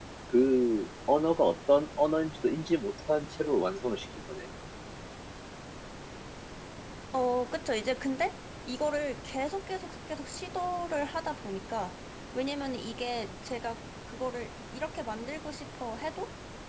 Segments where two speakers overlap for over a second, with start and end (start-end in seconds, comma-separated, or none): none